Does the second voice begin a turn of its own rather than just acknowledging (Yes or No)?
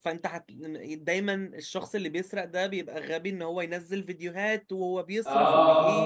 No